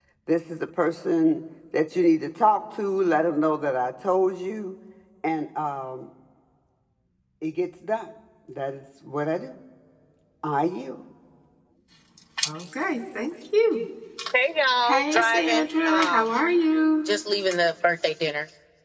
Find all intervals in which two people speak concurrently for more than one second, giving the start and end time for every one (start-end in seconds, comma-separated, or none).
14.8-16.2